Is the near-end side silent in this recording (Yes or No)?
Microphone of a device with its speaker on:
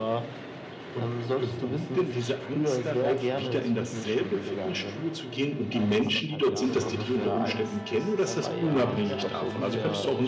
No